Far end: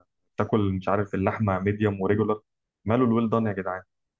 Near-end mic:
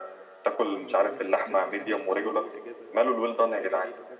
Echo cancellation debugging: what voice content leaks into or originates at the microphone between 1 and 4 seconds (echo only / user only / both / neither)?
both